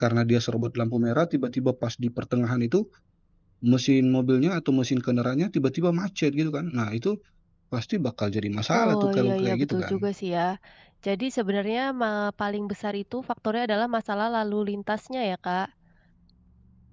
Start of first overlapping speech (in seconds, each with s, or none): 8.7 s